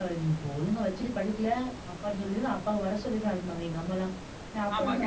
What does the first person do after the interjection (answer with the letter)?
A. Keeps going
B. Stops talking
A